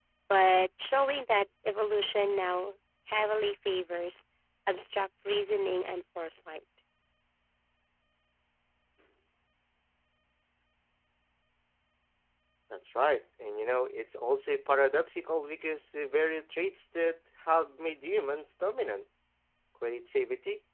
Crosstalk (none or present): none